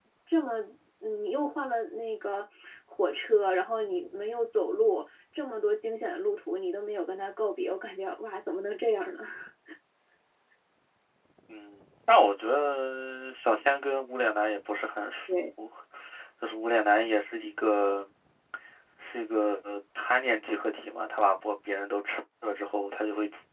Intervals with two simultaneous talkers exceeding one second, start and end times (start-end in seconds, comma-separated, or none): none